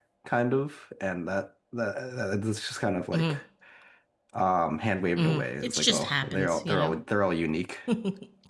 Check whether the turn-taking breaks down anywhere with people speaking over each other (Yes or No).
Yes